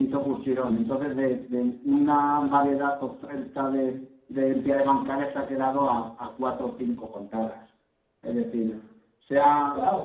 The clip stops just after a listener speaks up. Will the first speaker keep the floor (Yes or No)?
Yes